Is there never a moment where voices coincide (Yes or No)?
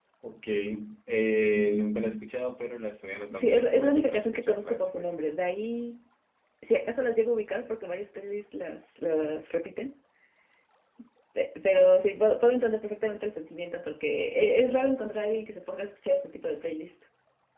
No